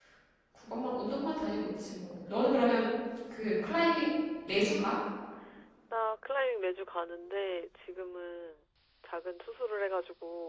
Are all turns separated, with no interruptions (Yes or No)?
Yes